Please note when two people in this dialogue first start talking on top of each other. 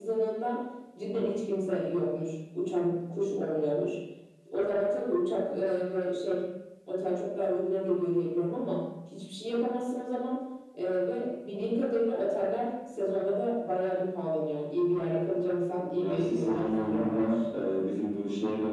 16.0 s

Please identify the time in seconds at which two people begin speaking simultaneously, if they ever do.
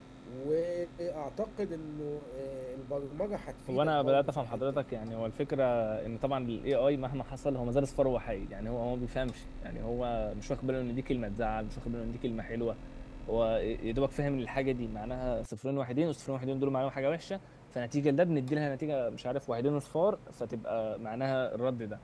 3.7 s

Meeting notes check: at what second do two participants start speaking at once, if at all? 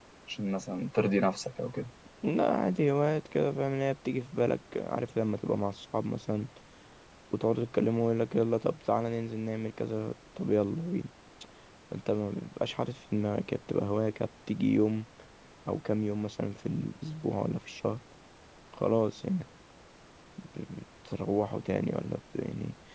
none

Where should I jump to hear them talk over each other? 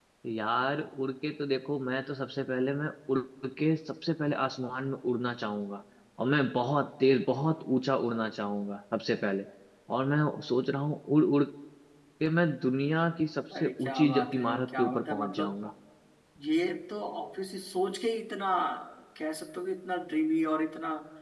13.5 s

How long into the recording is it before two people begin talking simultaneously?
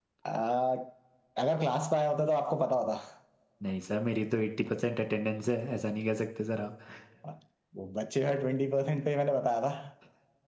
none

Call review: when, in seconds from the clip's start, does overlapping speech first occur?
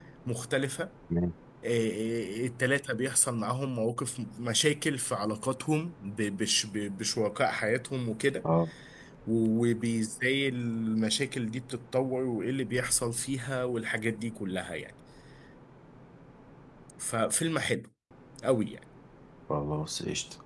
none

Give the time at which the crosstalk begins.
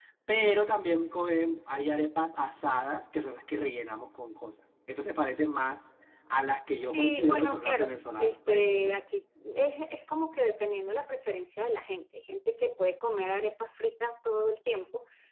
6.7 s

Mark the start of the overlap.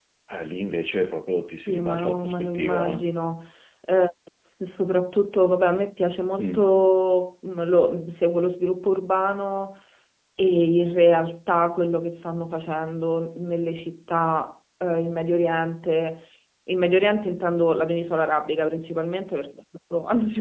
1.5 s

